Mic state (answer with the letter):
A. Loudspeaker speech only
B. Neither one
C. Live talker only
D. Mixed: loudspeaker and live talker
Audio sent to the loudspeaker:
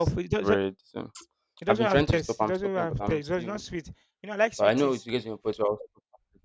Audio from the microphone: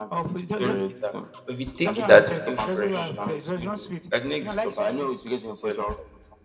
D